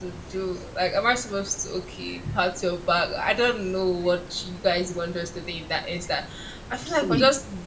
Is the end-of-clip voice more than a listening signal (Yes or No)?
No